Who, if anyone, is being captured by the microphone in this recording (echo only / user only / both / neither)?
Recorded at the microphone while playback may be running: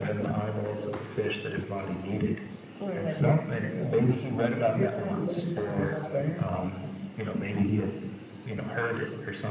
echo only